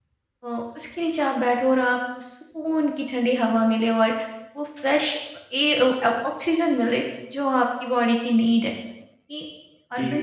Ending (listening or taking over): taking over